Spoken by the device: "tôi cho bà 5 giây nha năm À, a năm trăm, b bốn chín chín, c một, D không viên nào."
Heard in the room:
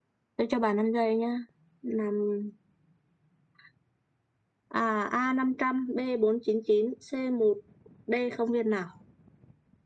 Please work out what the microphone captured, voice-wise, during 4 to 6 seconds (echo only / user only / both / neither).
echo only